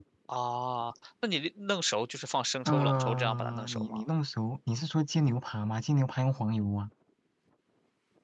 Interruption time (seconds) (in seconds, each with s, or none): 2.6 s